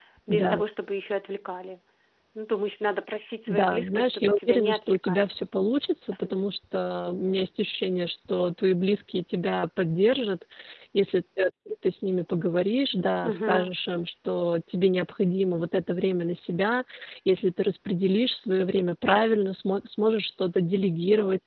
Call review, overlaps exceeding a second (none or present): present